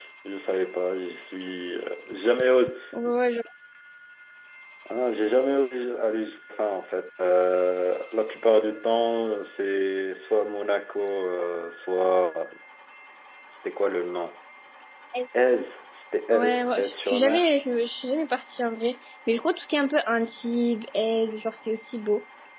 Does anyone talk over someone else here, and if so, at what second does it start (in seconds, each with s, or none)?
16.3 s